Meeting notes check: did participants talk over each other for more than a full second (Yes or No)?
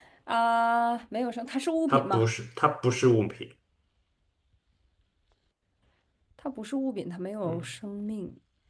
No